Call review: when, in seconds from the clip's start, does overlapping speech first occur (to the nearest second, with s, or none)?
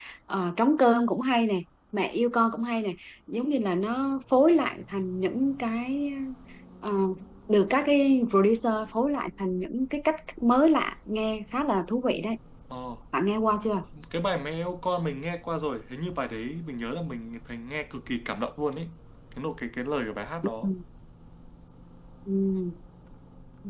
none